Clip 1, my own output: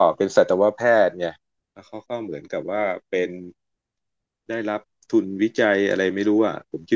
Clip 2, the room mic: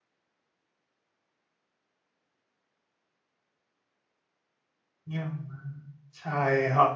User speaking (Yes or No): Yes